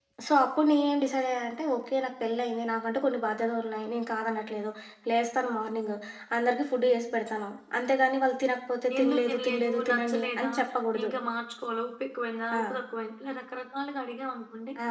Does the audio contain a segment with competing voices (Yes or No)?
Yes